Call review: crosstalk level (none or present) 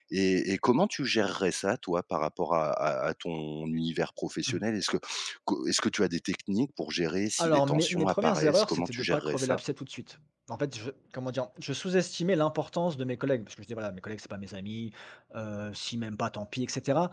present